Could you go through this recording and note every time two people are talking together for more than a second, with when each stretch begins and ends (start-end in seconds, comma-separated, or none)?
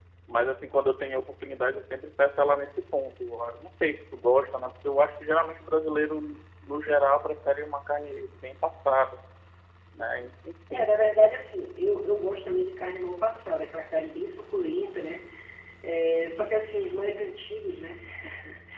none